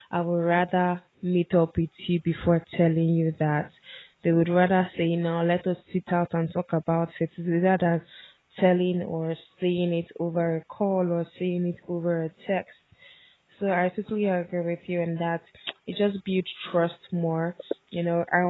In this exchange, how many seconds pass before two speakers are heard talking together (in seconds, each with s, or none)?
none